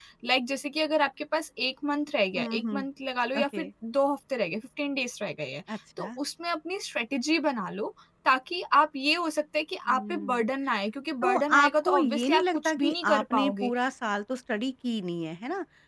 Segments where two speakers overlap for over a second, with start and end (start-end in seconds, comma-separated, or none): 11.2-13.7